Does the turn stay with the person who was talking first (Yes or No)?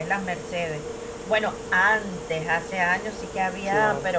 Yes